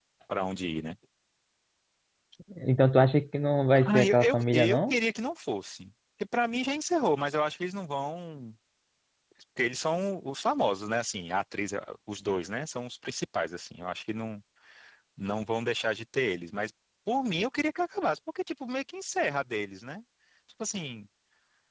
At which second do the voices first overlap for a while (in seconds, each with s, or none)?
3.7 s